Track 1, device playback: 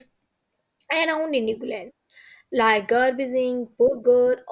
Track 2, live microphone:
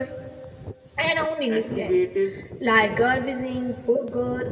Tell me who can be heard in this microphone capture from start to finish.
both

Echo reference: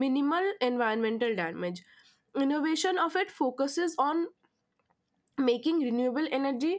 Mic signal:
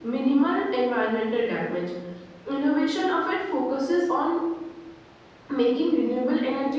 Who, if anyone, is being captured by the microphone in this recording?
echo only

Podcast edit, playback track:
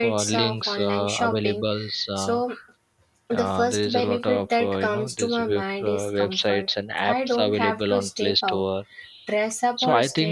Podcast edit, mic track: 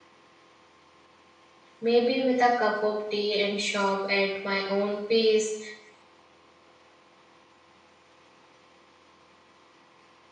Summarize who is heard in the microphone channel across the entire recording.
user only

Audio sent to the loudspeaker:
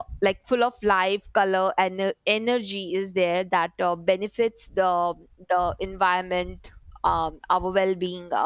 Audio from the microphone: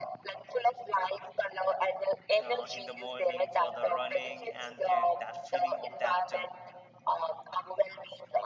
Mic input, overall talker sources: both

